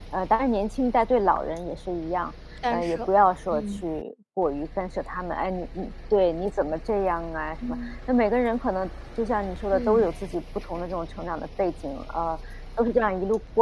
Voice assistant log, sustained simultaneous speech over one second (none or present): none